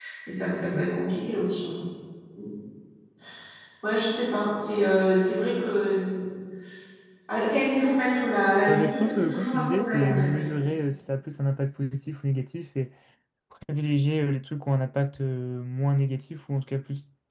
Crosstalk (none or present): present